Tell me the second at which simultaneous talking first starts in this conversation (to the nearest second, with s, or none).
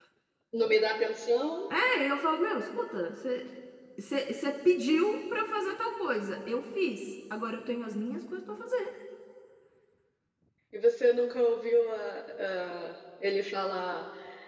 none